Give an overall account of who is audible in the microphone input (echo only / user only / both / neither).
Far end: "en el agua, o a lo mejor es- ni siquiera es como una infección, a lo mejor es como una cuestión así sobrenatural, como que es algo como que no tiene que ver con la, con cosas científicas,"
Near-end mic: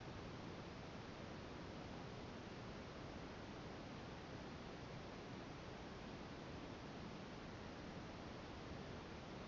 neither